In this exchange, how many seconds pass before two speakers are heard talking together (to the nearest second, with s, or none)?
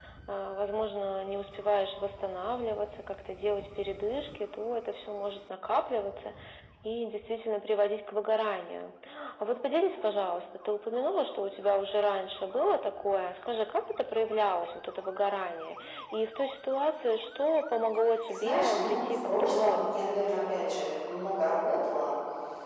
18 s